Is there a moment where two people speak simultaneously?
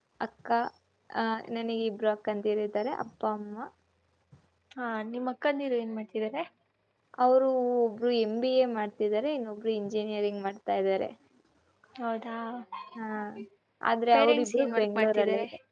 Yes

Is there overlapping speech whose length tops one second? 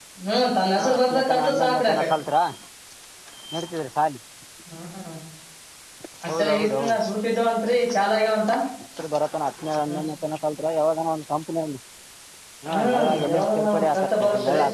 Yes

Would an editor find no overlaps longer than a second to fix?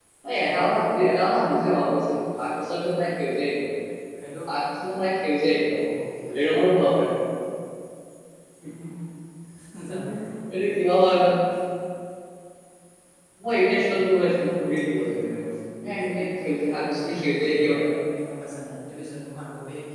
No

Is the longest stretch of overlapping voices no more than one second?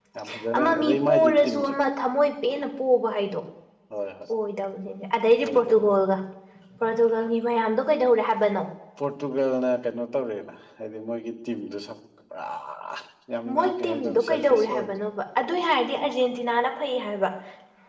No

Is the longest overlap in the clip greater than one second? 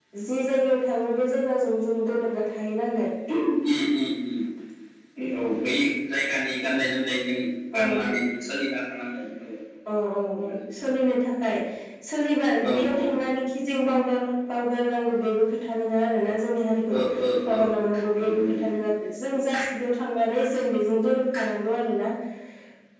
No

